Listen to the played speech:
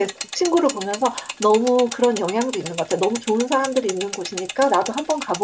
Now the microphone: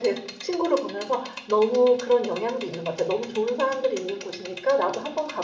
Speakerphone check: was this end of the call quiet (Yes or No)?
Yes